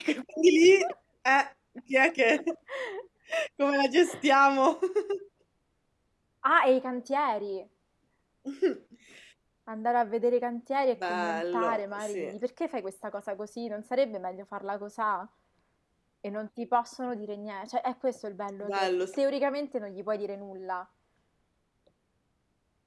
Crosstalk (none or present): present